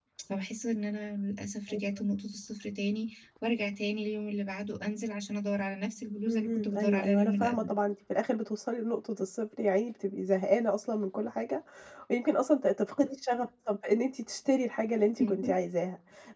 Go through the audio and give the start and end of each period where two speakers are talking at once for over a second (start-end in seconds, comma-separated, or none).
6.3-7.7